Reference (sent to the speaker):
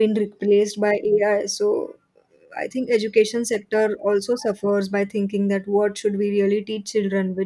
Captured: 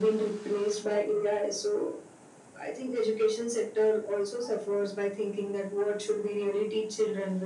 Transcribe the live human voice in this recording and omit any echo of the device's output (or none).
none